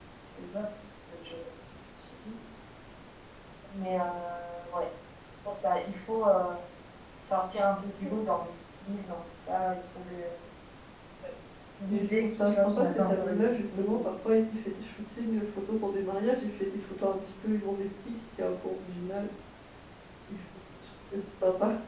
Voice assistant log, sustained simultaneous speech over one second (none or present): present